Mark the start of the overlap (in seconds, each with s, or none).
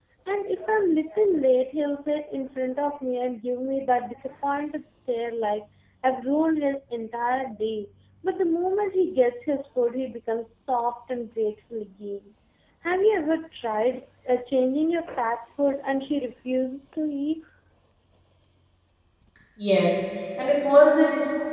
none